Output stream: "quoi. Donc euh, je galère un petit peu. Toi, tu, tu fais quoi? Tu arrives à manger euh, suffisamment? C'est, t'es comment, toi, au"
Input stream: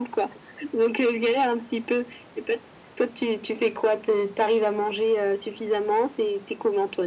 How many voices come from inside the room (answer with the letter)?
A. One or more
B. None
B